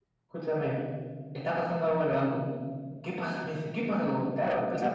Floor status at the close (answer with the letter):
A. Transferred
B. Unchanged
A